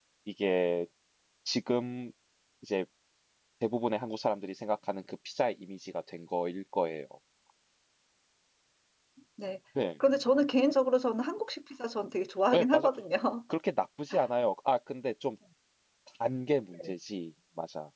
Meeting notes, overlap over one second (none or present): none